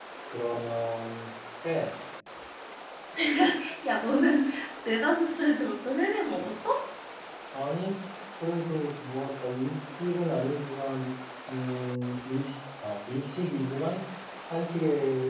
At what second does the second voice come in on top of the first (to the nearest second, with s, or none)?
none